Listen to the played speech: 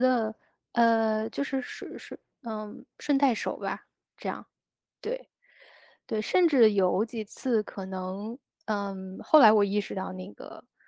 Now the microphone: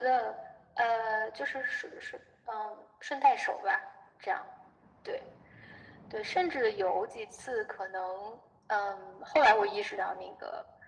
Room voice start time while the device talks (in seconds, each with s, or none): none